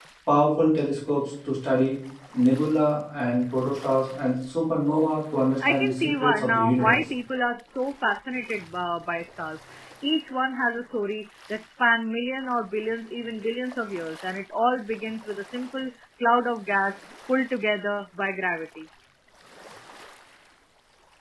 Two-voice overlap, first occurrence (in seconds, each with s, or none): 5.6 s